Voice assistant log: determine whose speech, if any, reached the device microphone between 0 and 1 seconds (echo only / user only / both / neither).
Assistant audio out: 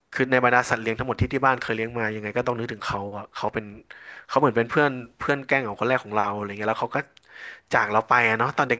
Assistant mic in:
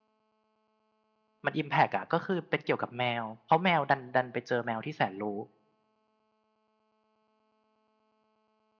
neither